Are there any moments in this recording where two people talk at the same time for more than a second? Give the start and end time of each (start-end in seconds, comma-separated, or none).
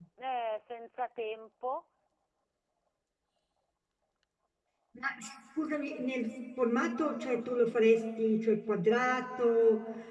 none